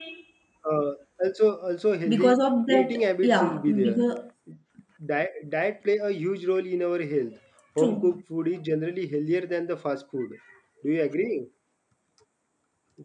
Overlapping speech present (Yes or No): Yes